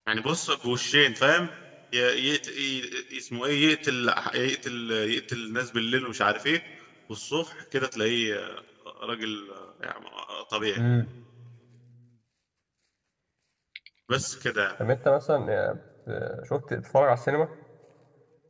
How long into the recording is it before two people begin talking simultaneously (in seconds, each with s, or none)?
none